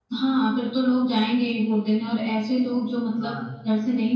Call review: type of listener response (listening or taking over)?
listening